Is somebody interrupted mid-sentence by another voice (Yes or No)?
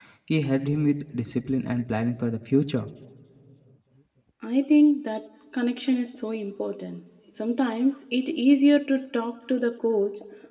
No